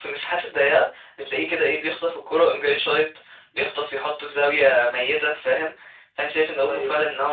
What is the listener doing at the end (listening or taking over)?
listening